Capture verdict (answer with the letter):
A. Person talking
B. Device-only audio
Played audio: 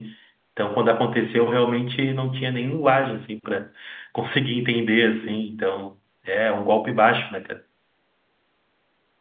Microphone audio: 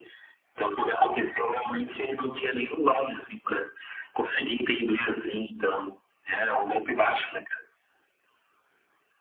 B